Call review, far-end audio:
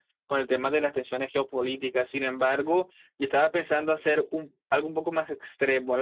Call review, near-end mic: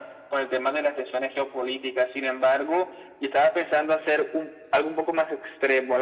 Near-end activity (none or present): none